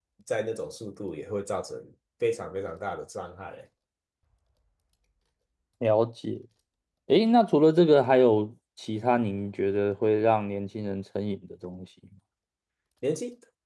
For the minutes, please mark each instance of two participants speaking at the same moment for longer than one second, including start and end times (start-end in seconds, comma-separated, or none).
none